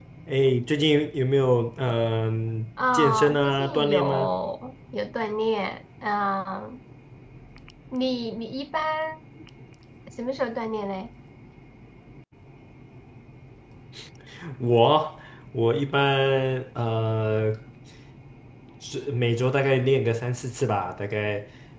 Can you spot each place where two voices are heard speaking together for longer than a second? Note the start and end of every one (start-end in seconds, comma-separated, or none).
2.9-4.3